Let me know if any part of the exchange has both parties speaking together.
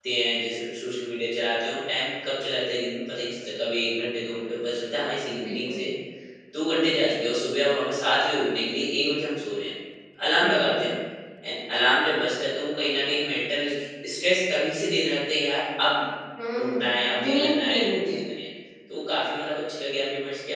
Yes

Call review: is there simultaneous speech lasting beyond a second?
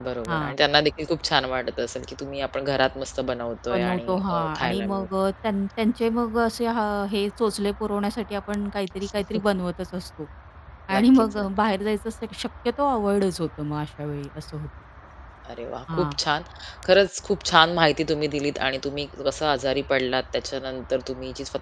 Yes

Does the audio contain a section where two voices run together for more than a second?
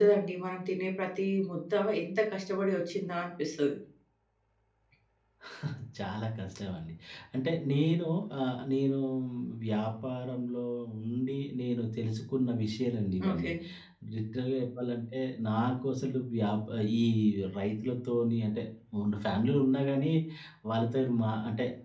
No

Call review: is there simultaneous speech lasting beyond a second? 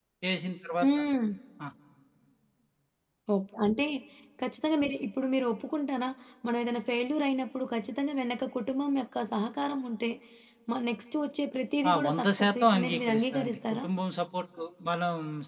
Yes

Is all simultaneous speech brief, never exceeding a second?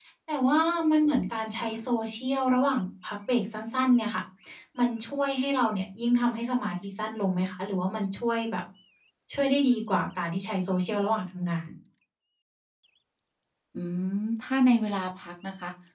Yes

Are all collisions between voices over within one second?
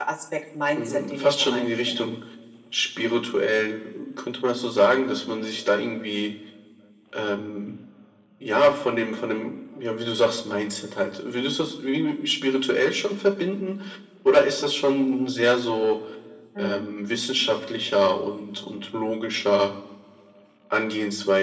No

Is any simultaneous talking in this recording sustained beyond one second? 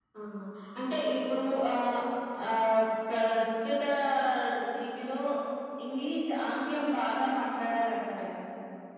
No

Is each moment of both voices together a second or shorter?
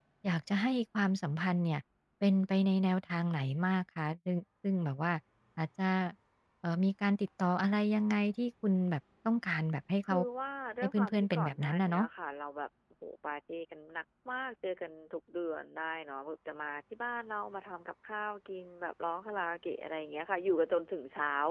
No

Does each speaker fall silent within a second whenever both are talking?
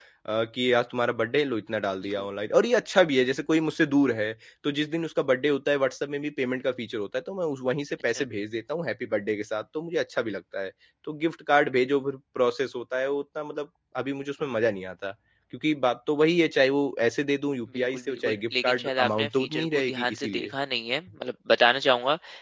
No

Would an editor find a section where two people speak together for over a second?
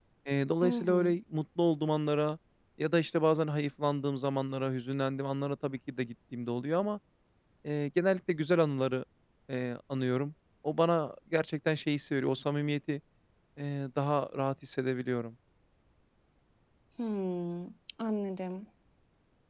No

